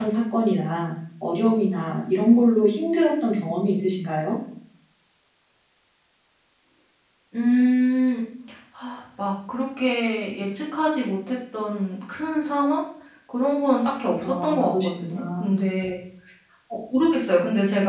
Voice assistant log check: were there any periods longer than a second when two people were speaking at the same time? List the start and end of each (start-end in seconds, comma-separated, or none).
14.2-15.5